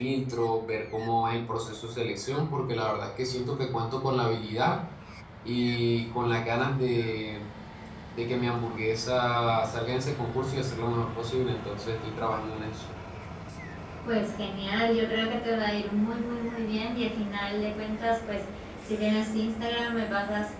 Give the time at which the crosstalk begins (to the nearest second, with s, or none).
none